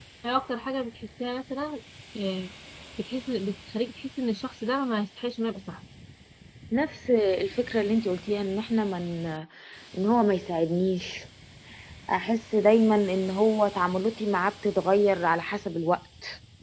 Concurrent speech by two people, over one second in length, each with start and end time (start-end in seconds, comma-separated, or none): none